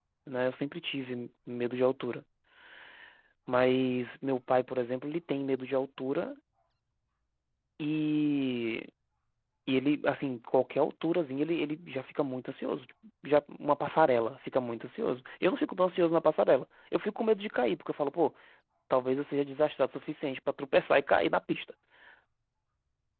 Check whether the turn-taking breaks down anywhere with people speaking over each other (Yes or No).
No